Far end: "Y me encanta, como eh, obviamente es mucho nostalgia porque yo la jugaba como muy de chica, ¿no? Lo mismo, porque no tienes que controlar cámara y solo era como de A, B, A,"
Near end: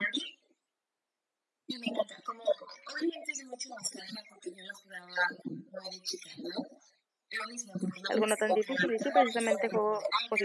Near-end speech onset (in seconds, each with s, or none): 8.1 s